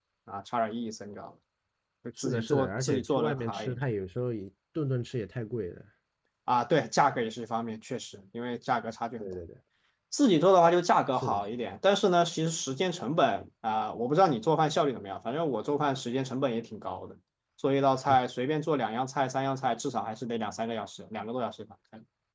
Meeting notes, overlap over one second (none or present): present